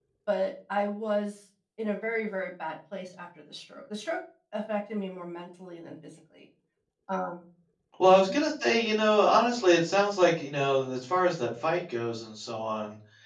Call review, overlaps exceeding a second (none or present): none